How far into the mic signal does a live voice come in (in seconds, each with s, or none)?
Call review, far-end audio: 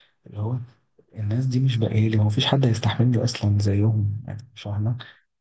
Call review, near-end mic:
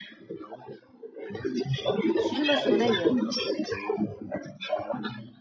2.0 s